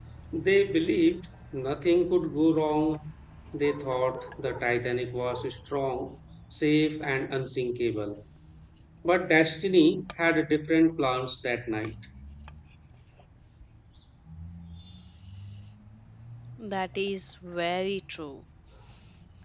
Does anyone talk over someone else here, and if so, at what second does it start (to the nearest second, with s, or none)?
none